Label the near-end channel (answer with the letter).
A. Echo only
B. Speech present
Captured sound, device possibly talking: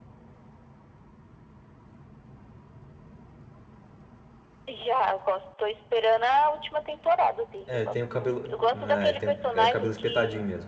B